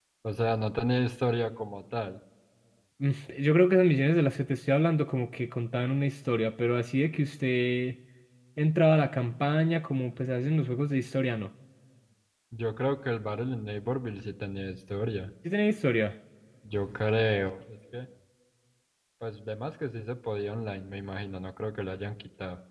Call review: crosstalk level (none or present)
none